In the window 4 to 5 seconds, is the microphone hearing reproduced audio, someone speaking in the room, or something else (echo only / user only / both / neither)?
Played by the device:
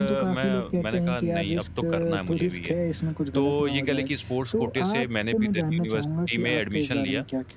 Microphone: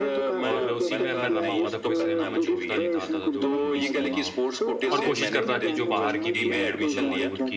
both